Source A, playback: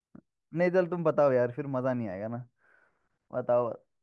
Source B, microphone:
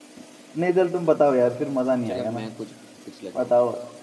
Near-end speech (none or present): present